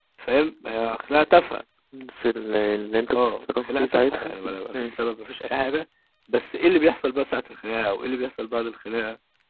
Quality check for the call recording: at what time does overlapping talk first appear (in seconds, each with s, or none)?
3.1 s